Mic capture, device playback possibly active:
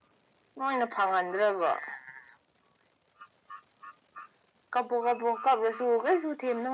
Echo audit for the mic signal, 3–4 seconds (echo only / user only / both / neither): neither